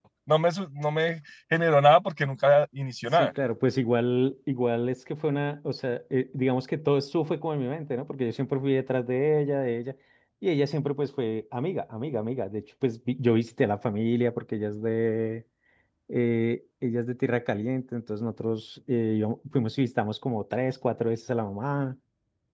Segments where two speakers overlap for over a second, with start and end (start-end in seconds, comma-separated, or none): none